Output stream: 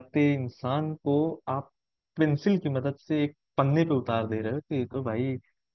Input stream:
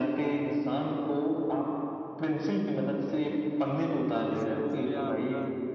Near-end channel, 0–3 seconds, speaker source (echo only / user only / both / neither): echo only